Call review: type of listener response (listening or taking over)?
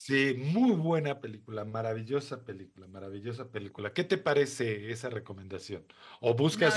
listening